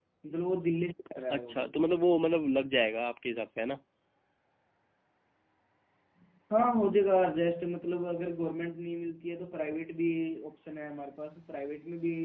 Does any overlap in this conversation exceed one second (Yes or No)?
No